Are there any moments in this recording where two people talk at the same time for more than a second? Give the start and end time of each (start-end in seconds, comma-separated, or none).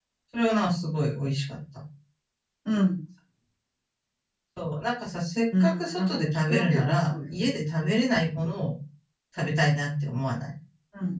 5.6-7.7